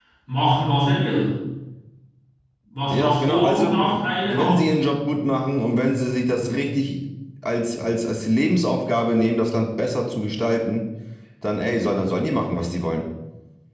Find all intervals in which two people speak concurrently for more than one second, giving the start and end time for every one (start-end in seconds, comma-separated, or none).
2.9-4.6